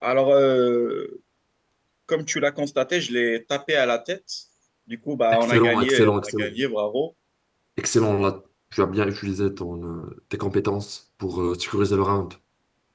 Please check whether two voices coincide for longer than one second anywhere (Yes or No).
Yes